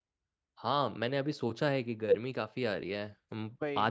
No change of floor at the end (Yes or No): Yes